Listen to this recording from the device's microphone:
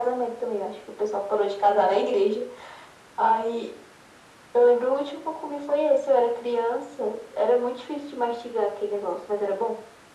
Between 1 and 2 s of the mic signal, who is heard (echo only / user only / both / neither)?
echo only